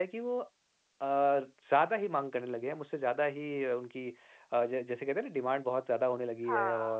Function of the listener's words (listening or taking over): listening